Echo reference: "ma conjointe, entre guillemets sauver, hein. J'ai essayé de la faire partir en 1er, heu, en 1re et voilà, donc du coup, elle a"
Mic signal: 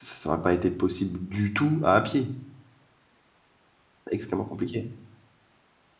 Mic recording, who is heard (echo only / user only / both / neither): user only